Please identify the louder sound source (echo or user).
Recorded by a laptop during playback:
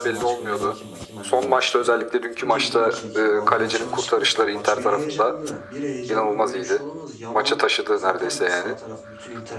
echo